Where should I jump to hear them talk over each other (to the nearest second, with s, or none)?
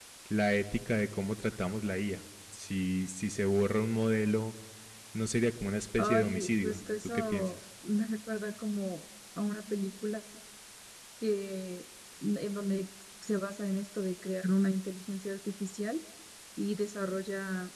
6 s